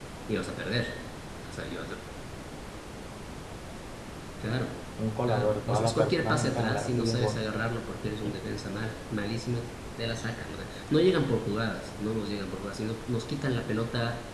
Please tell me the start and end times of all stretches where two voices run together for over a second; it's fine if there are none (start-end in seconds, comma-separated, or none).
5.2-7.5